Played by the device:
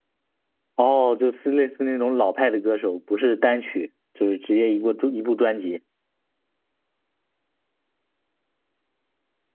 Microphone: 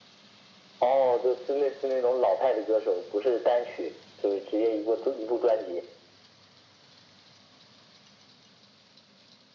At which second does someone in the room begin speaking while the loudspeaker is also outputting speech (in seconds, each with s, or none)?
none